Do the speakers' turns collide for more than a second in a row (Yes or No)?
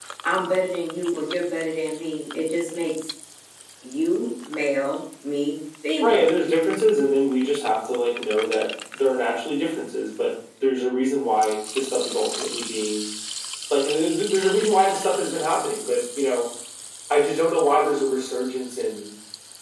No